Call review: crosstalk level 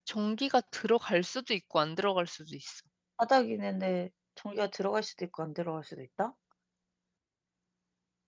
none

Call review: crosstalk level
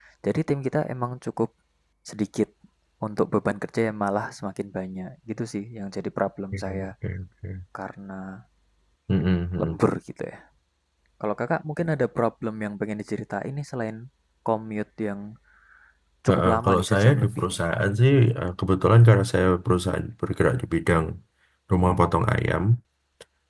present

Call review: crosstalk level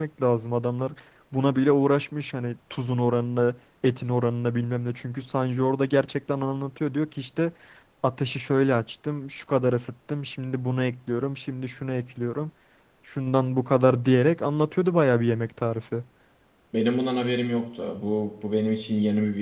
none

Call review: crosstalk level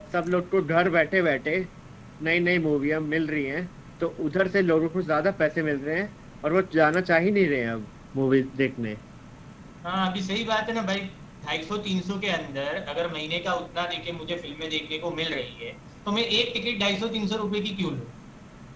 none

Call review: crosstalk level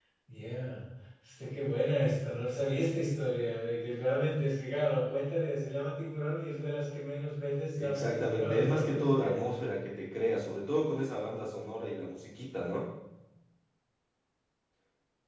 present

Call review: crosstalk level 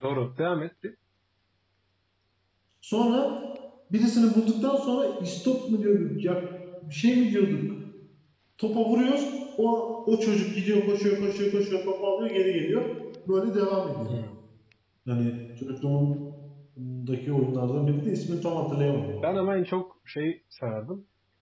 none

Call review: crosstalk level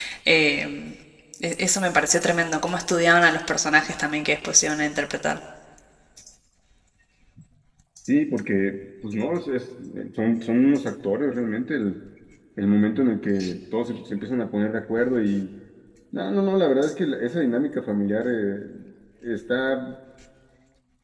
none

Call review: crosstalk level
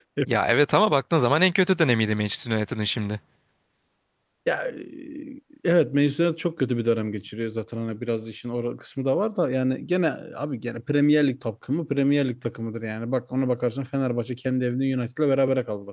none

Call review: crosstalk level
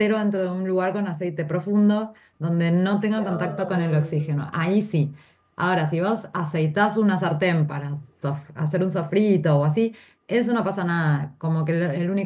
present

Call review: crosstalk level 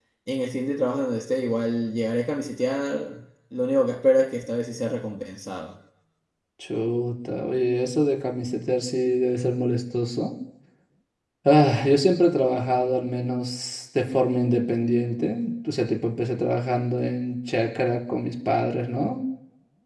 none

